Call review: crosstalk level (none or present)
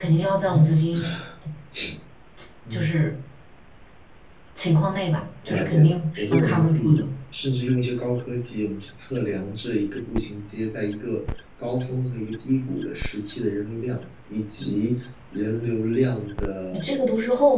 present